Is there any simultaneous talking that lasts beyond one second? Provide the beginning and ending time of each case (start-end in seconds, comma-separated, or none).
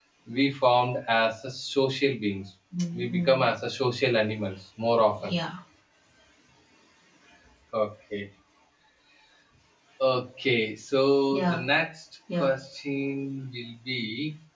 none